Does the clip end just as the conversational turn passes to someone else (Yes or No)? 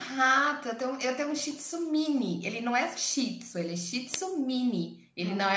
No